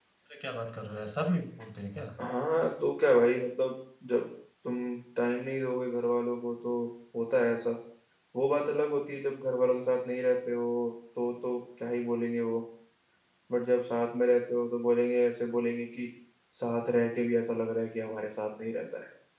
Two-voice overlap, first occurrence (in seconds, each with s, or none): none